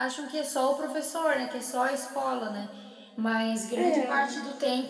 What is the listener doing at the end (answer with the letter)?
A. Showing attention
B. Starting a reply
A